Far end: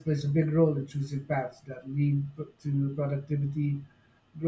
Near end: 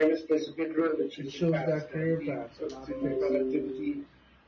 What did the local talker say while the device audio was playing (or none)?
It shows that career paths are not fixed.